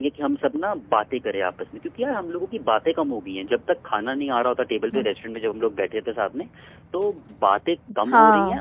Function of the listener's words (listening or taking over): listening